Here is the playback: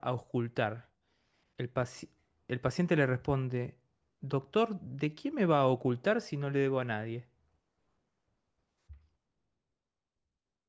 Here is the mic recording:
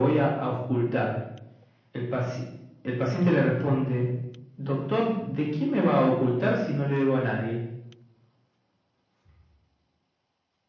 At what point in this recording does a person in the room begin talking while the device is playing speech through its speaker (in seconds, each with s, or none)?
none